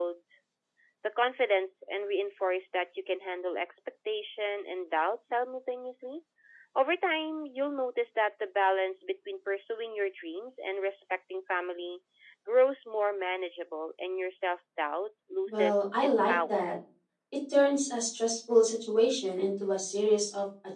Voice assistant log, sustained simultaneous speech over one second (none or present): present